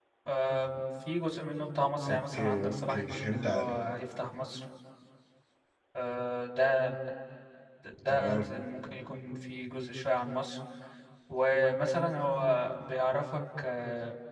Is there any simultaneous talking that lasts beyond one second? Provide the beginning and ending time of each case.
2.1-3.7

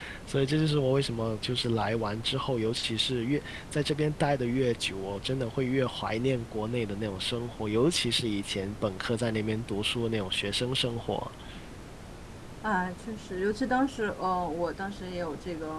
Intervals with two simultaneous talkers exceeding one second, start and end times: none

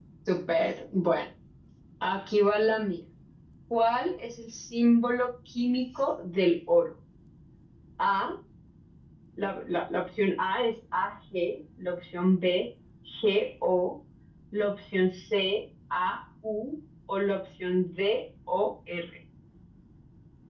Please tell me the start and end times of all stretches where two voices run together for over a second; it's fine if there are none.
none

